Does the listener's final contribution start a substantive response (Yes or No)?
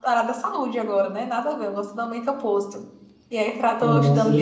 Yes